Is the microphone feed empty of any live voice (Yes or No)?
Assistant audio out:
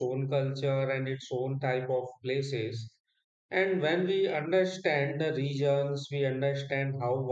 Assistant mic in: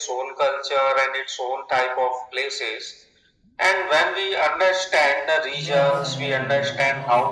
No